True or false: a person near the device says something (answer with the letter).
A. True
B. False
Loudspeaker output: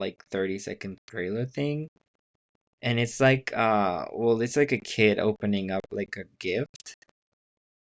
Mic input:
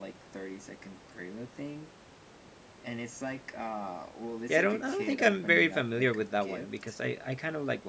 A